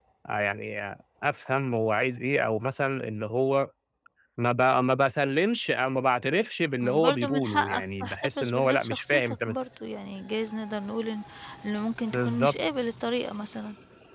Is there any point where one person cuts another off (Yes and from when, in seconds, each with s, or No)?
Yes, from 6.8 s